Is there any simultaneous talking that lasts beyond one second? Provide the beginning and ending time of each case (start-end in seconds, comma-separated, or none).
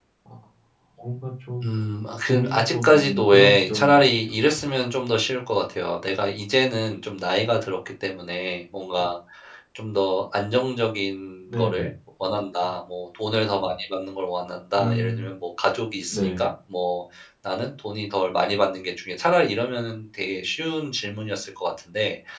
2.3-4.0